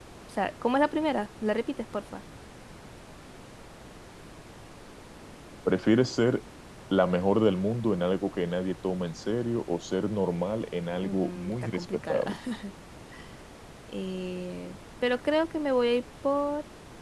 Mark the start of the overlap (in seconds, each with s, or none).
11.0 s